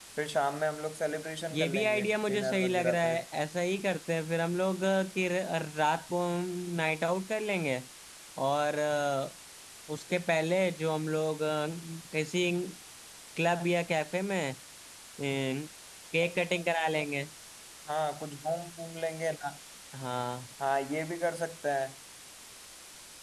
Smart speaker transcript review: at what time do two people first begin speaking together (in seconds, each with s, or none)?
1.5 s